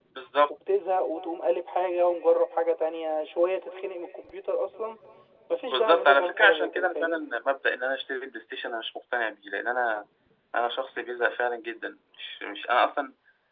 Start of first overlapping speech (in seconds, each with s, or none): 5.7 s